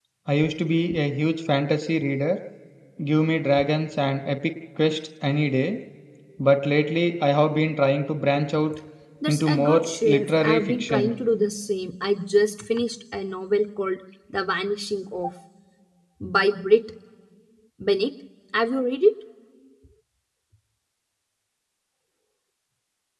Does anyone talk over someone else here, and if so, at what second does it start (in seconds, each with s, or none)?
9.3 s